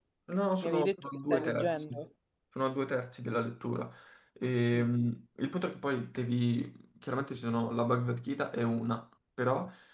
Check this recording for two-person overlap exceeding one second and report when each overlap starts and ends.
0.6-2.0

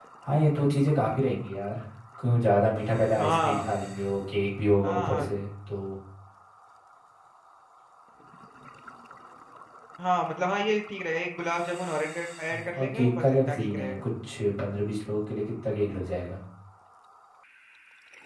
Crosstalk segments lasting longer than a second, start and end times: 12.5-14.0

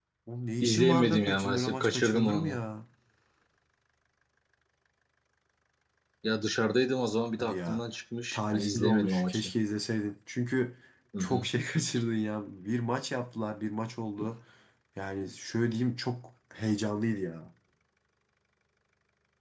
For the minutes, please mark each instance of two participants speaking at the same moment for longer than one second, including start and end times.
0.6-2.6, 8.3-9.5

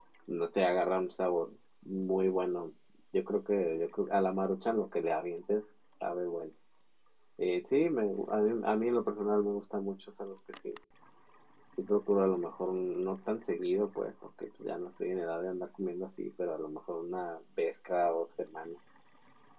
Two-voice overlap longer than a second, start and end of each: none

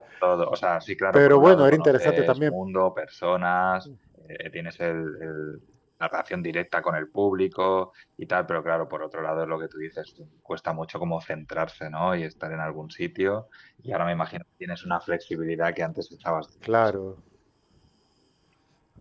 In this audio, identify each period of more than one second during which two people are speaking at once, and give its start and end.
1.1-2.5

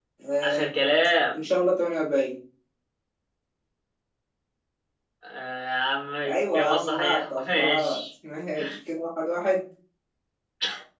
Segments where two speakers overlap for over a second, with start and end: 6.2-8.0

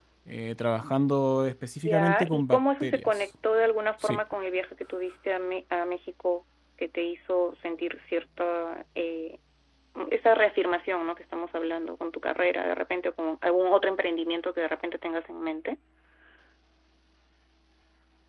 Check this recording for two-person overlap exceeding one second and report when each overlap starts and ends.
1.8-3.2

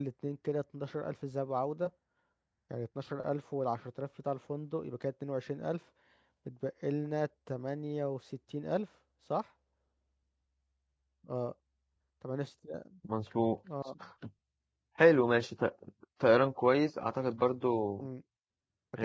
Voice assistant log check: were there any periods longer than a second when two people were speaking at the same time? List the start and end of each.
none

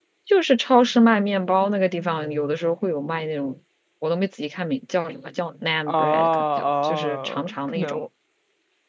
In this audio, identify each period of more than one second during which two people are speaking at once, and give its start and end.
5.9-8.0

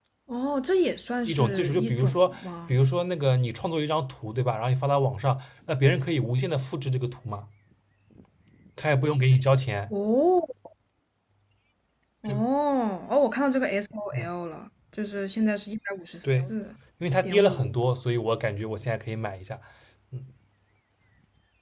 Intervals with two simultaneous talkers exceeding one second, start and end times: 1.3-2.7

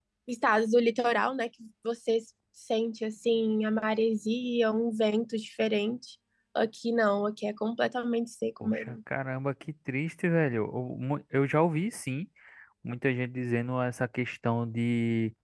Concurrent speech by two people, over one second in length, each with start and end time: none

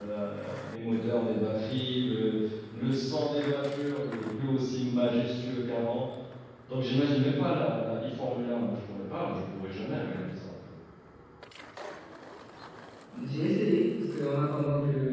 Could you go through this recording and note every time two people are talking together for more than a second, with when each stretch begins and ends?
none

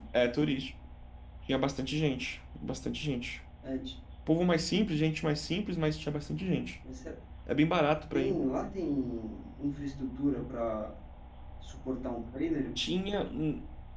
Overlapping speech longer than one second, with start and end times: none

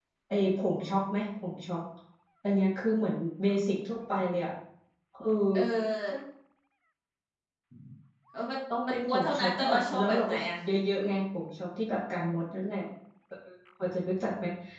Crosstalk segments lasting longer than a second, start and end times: 8.9-10.4

